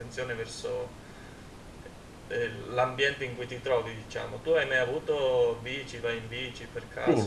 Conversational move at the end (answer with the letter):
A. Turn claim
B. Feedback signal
A